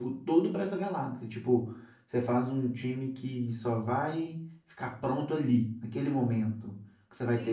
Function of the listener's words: taking over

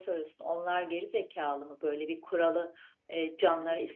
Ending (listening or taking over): listening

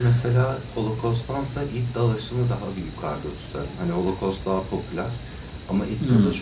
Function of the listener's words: listening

